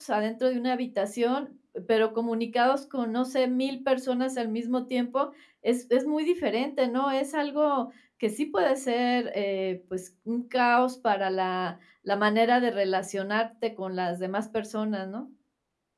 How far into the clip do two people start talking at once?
none

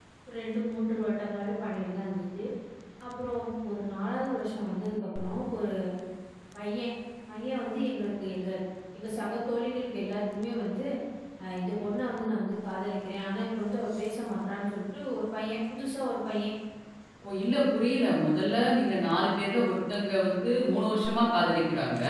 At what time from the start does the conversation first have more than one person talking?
none

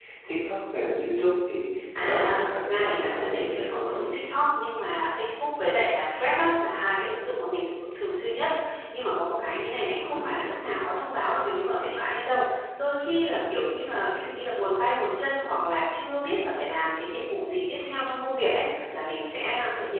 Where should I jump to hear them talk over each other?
2.0 s

